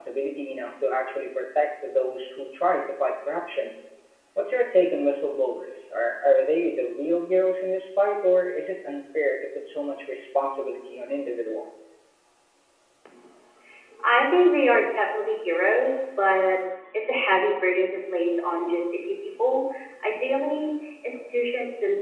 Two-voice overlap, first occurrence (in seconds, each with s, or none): none